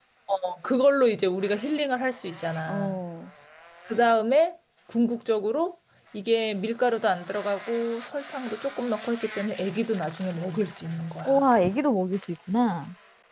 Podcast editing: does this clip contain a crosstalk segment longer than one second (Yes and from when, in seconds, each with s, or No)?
No